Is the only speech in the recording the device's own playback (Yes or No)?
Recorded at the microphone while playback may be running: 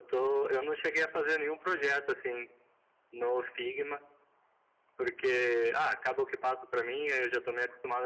Yes